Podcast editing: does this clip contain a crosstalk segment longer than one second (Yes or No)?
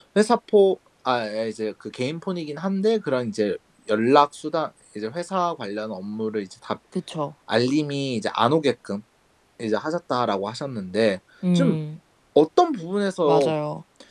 No